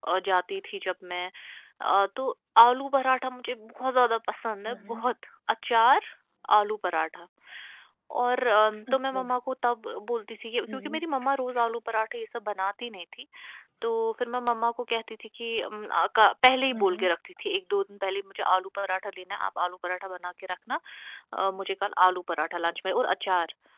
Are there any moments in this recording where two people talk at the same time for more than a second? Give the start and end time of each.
none

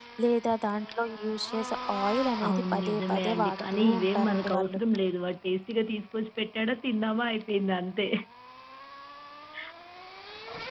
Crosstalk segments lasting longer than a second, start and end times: 2.5-4.8

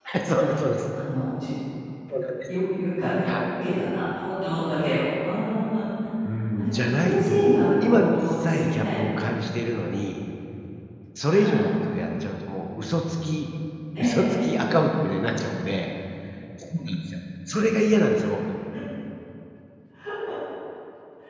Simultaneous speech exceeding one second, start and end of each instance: 6.6-8.9

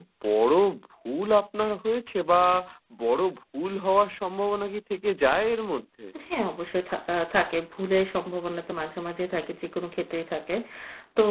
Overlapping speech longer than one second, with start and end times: none

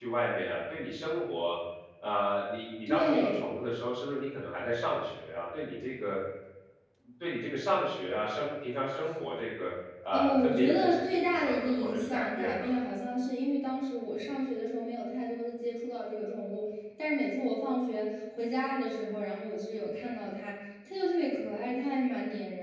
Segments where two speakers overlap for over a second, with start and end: 10.1-12.7

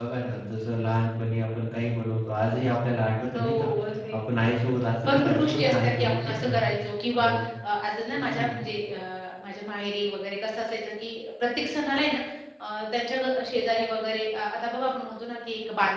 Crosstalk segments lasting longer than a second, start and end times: 5.0-6.5

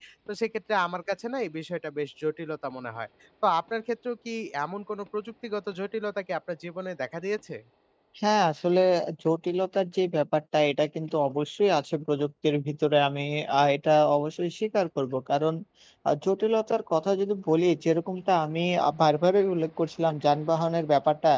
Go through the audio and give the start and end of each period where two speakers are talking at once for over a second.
none

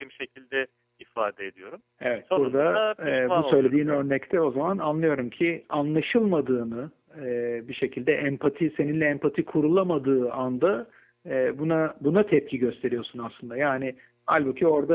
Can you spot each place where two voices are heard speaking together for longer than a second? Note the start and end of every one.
2.4-3.8

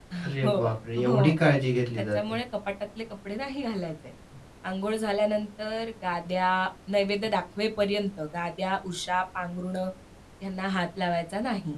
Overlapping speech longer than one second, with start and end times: none

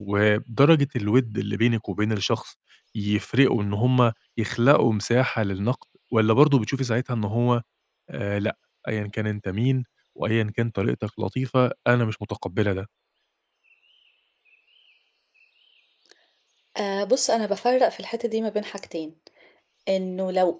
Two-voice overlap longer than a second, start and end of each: none

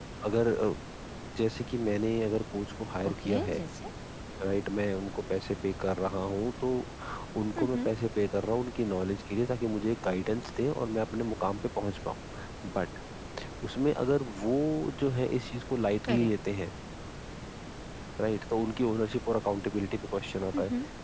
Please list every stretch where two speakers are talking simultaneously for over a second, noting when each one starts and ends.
none

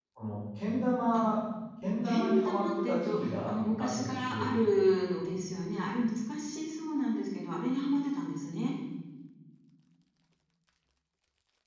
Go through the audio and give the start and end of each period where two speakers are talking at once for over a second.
2.0-4.5

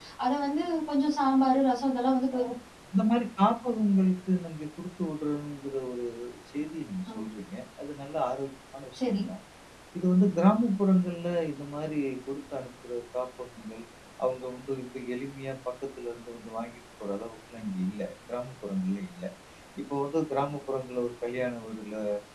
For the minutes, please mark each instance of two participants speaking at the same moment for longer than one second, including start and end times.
none

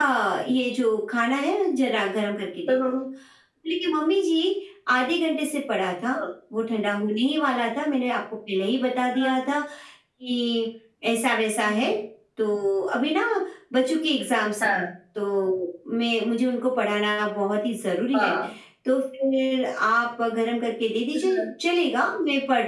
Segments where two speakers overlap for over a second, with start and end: none

